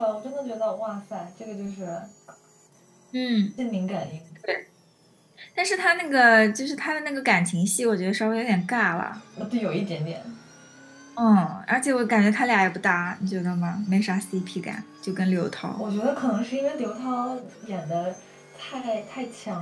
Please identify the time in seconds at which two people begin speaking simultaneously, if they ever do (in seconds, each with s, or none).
none